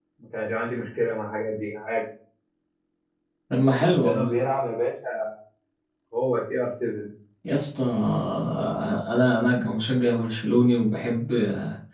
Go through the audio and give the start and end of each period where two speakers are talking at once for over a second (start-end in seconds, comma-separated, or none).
none